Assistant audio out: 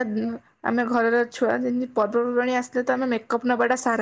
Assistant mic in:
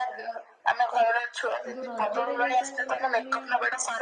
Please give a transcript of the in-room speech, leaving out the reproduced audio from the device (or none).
କିନ୍ତୁ ରଜରେ ଯୋଉଟା ଯେହେତୁ ଆମେ